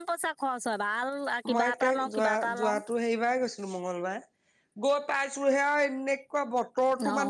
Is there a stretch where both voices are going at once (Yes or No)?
Yes